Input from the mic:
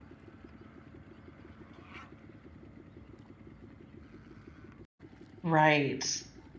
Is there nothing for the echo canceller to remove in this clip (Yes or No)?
Yes